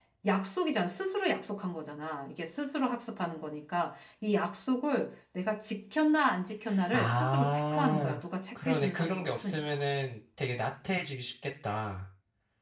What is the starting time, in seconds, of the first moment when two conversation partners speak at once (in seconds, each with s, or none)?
6.7 s